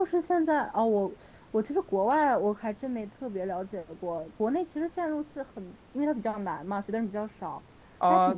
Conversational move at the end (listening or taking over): taking over